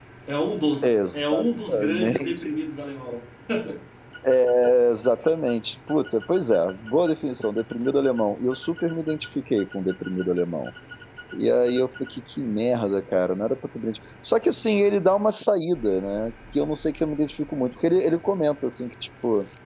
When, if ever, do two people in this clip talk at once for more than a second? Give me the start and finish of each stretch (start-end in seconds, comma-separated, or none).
0.8-2.5